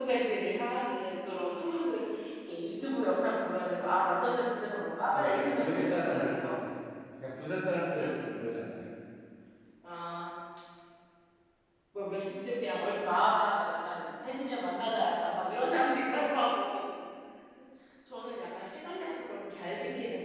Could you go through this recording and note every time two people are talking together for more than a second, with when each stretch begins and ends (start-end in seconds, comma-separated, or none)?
5.1-6.5